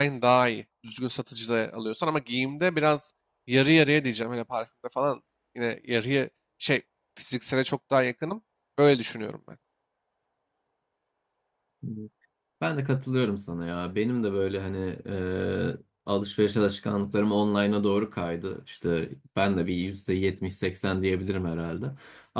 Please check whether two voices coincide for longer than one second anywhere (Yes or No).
No